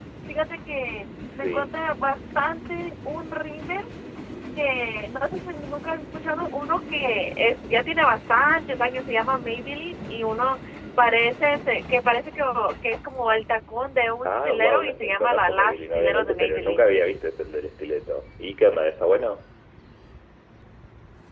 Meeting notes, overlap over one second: present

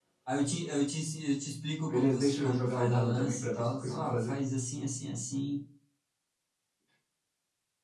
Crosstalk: present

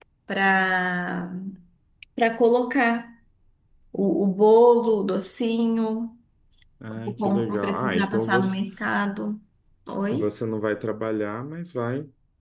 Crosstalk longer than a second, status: present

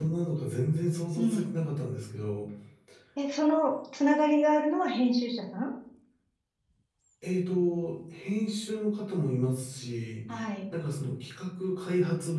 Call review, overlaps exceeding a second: none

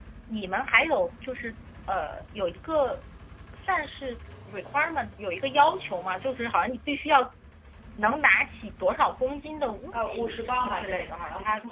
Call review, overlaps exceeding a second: present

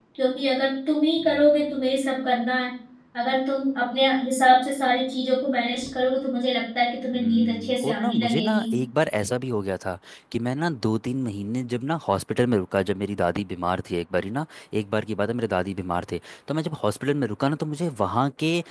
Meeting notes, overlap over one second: present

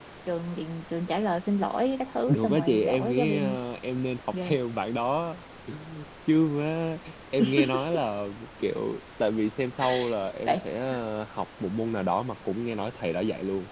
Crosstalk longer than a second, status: present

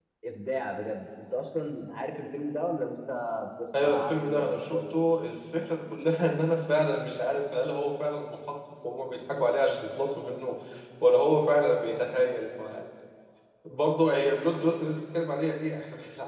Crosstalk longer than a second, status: present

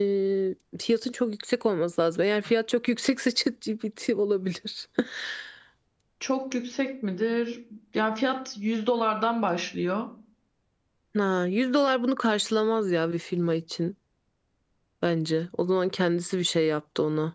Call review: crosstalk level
none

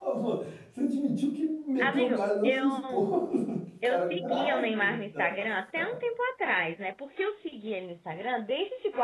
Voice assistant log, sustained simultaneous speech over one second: present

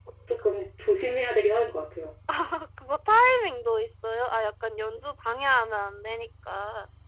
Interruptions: none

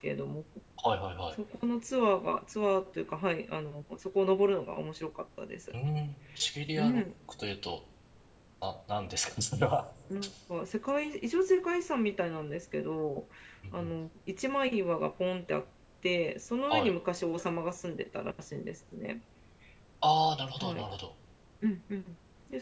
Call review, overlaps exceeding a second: none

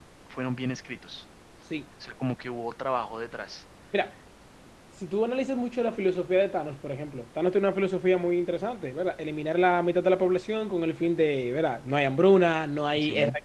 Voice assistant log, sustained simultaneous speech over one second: none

